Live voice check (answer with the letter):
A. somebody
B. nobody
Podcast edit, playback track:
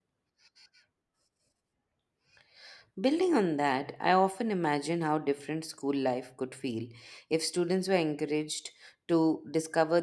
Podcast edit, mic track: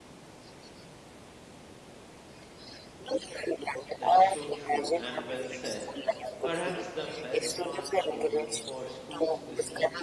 A